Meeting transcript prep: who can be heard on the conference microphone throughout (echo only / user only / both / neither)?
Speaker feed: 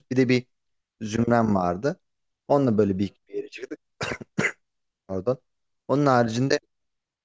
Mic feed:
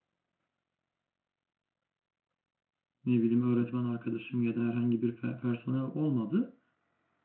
user only